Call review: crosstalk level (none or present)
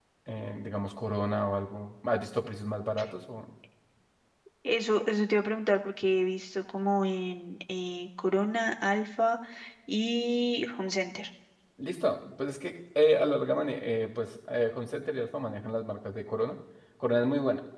none